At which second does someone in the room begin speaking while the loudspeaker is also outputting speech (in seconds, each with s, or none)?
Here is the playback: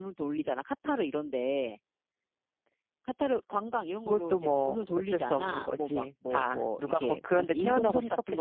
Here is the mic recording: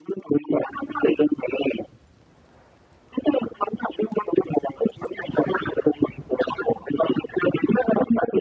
none